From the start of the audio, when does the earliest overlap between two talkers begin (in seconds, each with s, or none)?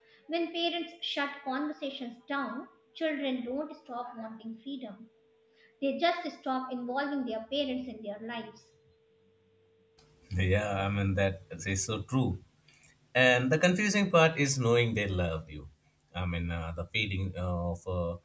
none